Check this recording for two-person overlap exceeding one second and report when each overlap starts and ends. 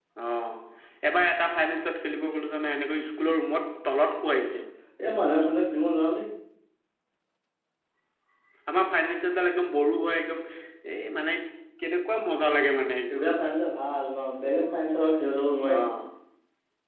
none

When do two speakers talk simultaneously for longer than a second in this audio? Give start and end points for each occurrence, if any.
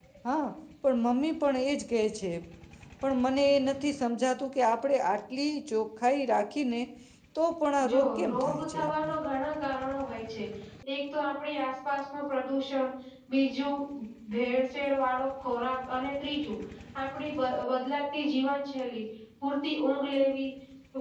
7.9-9.1

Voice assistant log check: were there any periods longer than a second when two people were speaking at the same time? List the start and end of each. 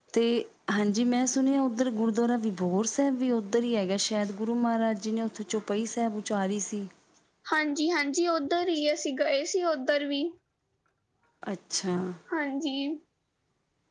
none

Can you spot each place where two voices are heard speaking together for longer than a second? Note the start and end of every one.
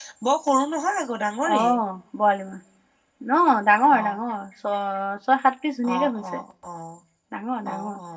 none

